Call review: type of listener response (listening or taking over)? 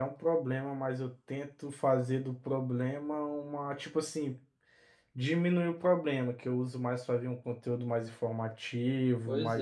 taking over